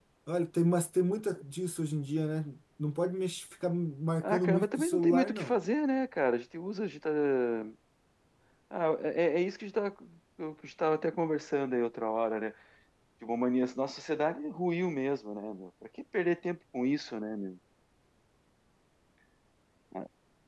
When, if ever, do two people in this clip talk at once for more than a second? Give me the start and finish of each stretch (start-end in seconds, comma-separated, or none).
4.2-5.6